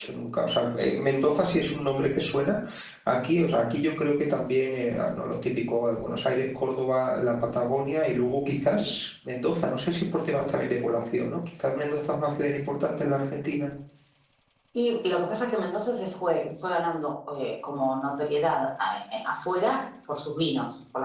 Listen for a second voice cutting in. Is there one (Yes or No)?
No